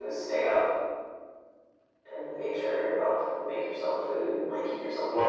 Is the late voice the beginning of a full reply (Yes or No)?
Yes